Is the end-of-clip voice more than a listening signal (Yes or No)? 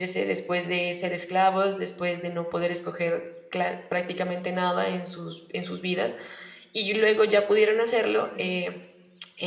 No